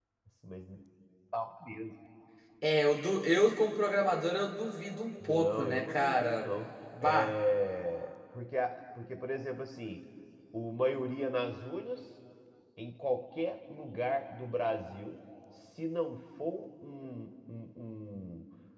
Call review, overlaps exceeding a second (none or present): present